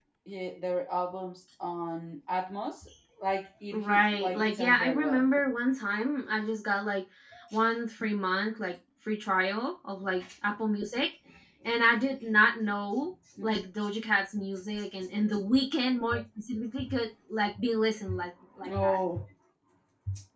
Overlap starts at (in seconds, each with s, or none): 3.7 s